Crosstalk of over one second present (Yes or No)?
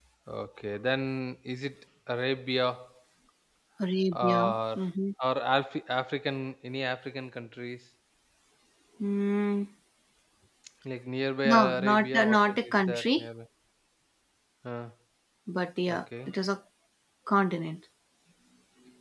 Yes